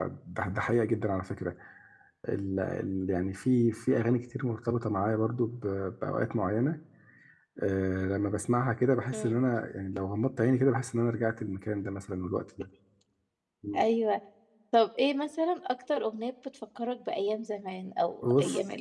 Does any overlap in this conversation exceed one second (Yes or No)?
No